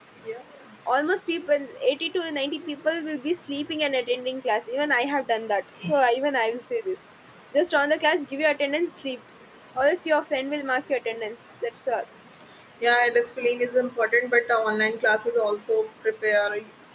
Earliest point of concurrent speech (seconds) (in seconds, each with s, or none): none